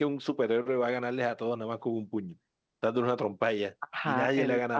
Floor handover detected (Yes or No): Yes